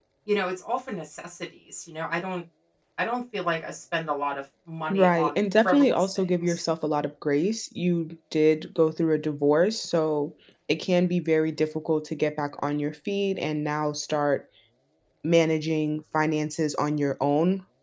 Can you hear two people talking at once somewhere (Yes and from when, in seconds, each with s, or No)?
Yes, from 4.9 s